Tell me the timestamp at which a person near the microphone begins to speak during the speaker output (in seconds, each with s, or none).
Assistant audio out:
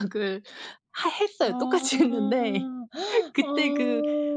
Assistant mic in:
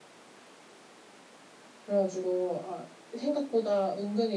1.9 s